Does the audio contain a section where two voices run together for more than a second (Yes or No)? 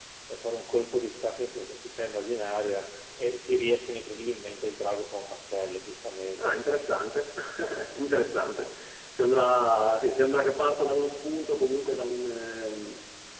No